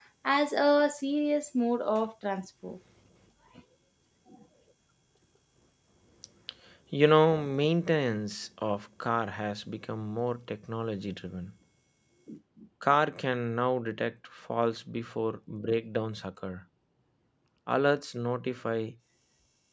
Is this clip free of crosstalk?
Yes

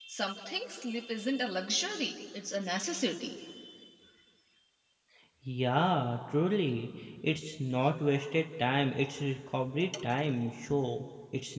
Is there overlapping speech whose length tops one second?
No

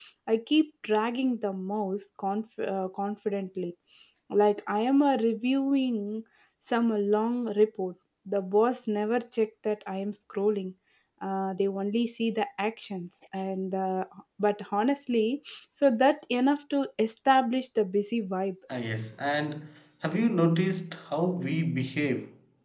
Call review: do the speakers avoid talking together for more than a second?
Yes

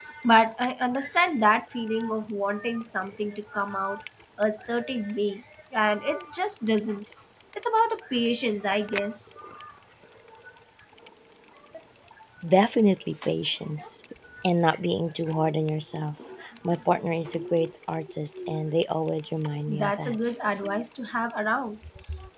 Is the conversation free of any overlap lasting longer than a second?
Yes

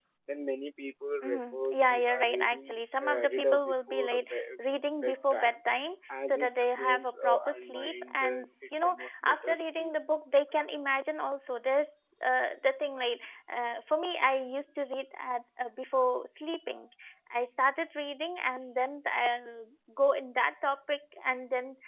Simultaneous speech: Yes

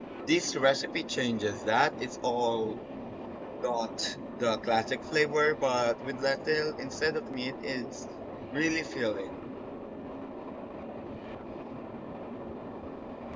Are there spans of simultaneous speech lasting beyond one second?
No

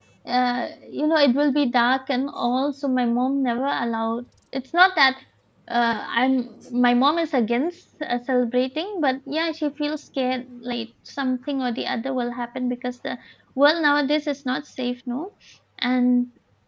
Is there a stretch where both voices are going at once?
No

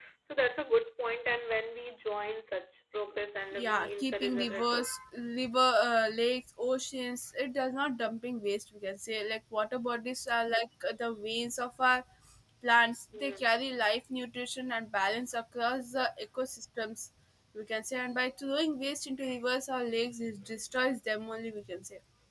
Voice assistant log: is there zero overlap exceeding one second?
No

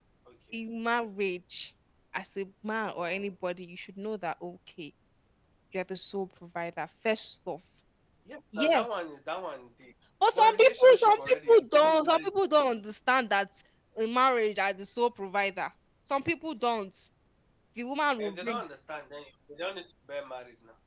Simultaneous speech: Yes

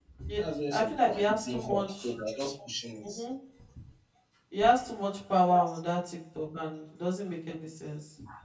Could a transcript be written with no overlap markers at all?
No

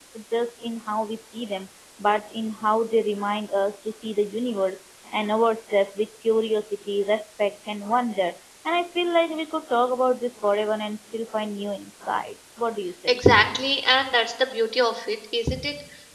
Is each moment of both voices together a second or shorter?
Yes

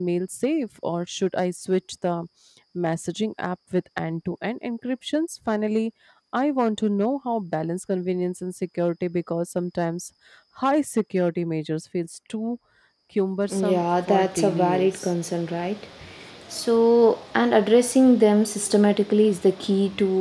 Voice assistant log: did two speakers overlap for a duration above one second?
Yes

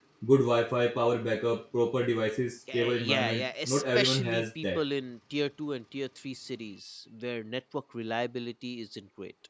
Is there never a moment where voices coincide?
No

